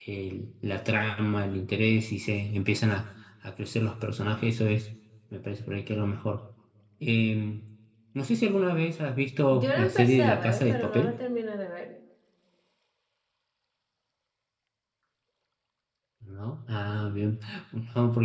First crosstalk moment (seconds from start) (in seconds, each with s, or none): 9.5 s